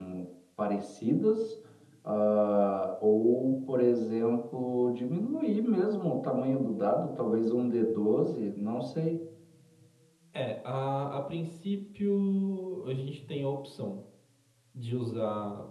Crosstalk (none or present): none